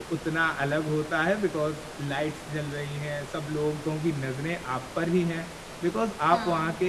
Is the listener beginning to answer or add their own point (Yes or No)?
No